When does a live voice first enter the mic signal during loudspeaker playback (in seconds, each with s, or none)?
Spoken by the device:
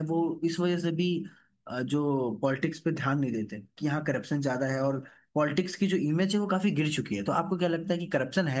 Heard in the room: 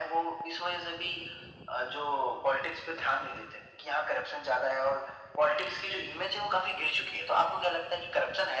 none